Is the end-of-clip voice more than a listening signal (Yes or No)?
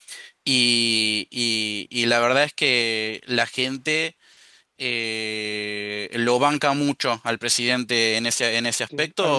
Yes